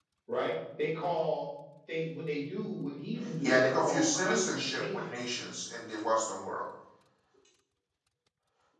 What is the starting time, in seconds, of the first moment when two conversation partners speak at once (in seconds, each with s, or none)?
3.4 s